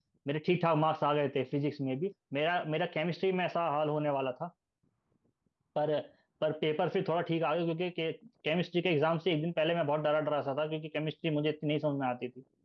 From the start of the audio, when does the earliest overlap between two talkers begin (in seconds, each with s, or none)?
none